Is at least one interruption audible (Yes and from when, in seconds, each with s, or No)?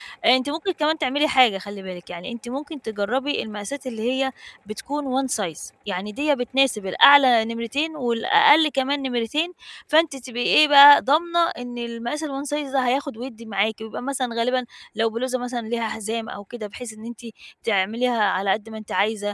No